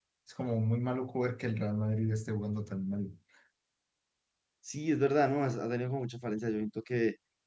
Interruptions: none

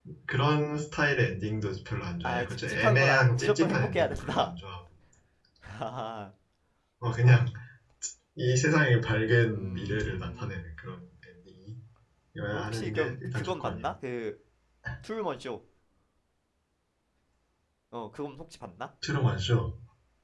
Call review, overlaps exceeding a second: present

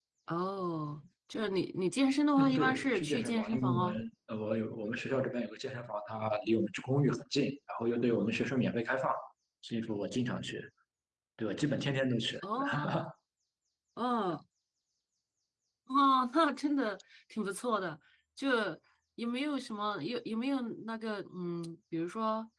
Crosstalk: present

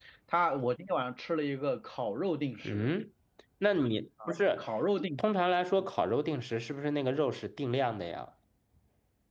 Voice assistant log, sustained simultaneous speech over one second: none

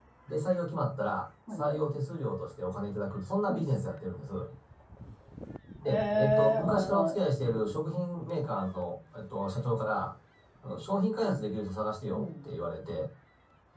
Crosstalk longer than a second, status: present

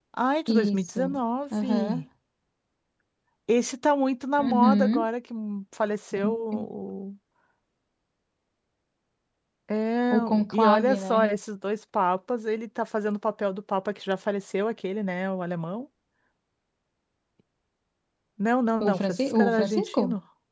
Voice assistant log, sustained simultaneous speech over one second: present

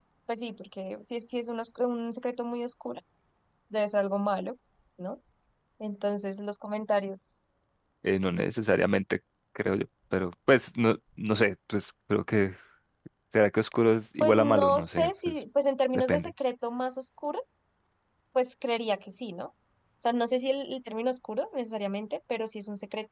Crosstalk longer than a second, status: present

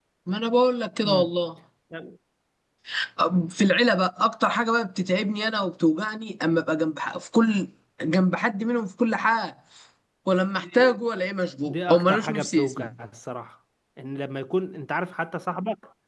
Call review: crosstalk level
present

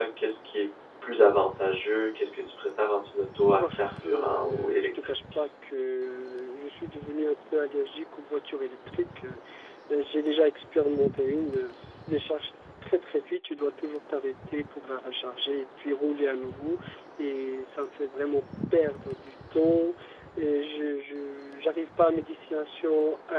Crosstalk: present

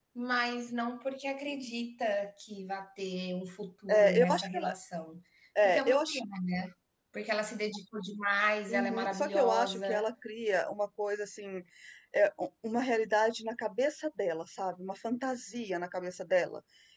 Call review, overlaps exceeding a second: present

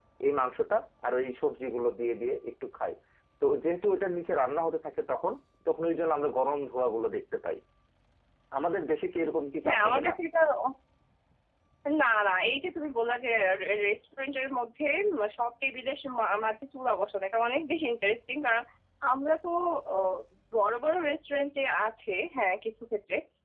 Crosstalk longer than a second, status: none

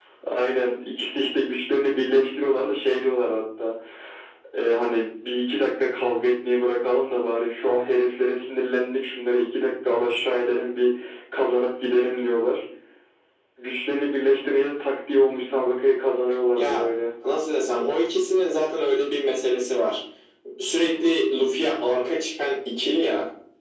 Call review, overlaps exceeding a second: none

